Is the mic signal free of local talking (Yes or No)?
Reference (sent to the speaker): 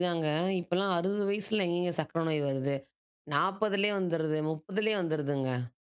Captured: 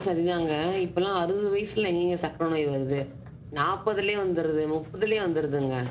Yes